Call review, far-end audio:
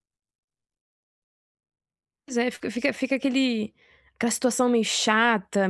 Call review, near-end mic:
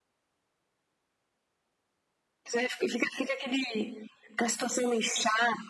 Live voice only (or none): none